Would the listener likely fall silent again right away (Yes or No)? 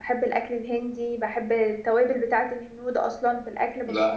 No